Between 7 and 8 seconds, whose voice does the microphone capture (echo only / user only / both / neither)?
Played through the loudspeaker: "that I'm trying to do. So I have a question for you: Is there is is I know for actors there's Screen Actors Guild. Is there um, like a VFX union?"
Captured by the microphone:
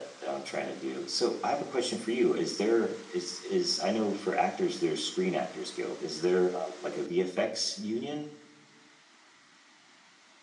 echo only